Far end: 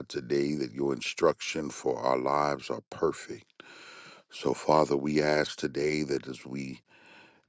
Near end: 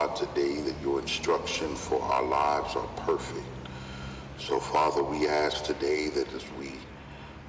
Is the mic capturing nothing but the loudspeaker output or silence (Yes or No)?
Yes